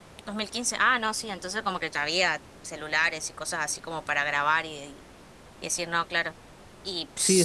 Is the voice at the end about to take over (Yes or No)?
Yes